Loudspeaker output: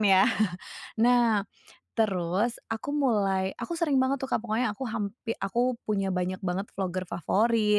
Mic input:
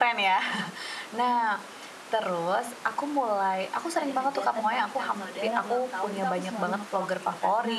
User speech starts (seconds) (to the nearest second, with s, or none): 4 s